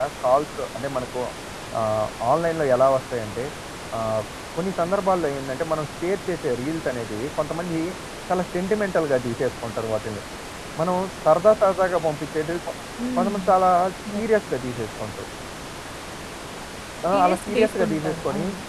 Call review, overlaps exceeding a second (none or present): present